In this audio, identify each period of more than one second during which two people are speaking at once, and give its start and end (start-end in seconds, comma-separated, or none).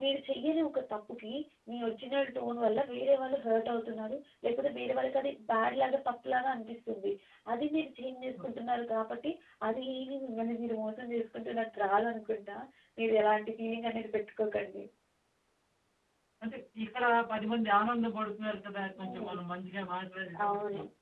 none